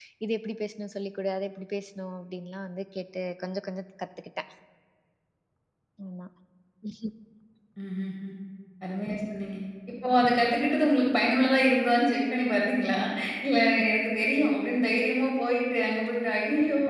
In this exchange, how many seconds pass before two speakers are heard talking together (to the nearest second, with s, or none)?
none